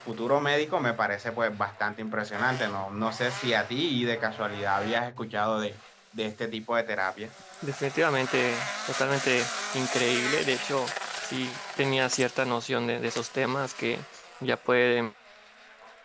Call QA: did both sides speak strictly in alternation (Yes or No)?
Yes